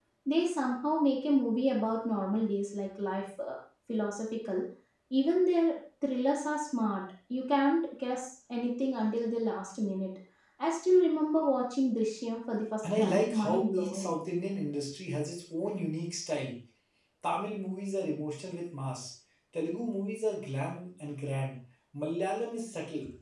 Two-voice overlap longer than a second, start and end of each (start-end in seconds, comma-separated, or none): 12.8-14.2